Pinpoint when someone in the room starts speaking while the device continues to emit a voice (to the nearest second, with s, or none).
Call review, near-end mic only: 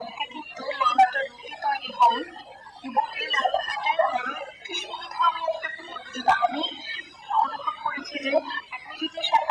none